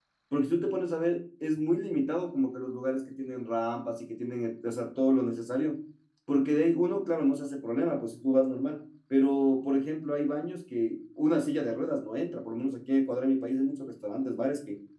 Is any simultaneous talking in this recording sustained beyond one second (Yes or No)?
No